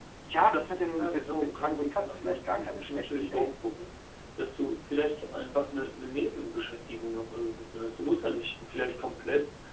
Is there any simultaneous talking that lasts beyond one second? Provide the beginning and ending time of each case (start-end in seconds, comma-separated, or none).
1.0-3.5